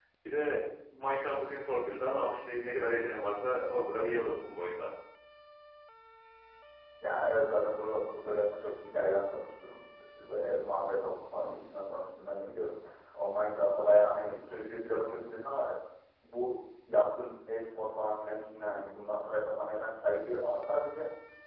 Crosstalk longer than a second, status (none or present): none